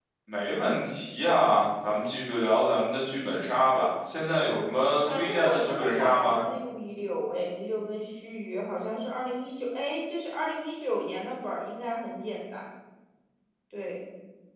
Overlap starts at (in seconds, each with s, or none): 5.0 s